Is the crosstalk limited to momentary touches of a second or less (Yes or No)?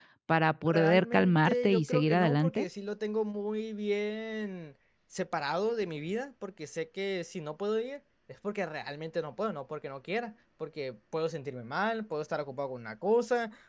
No